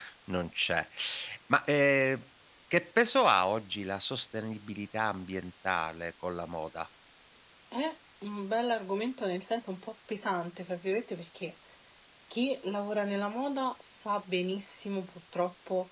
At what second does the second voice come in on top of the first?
none

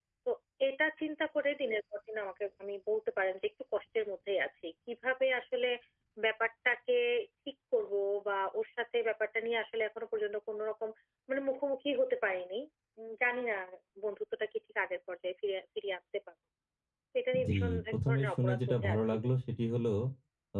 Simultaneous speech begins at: 17.4 s

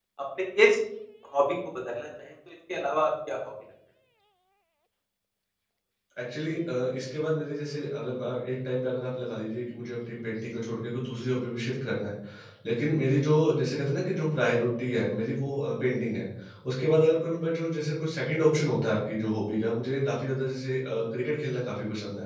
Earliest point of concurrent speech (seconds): none

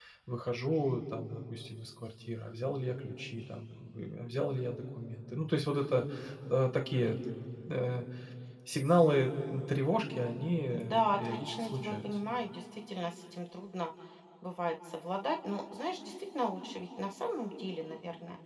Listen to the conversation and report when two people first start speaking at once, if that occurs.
10.7 s

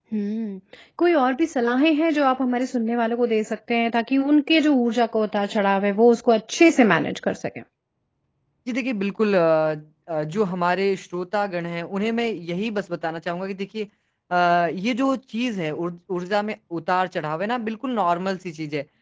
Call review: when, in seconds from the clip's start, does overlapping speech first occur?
none

